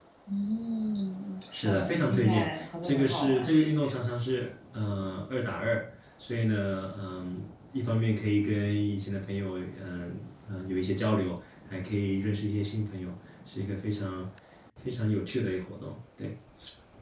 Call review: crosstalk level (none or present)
present